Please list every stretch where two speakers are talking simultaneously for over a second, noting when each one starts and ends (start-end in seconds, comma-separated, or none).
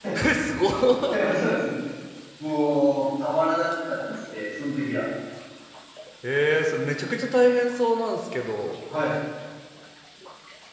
none